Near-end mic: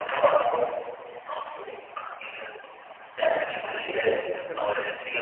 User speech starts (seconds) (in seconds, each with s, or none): 3.7 s